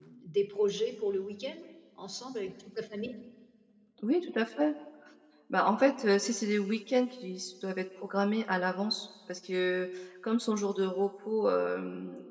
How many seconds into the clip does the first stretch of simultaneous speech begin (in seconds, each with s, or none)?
none